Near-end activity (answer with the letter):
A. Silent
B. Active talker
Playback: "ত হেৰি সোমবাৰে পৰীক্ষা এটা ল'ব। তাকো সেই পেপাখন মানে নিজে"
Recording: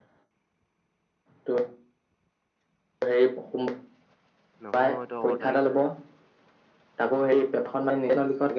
B